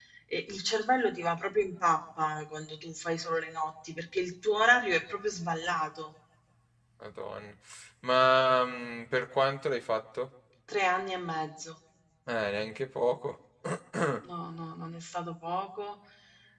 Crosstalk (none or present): none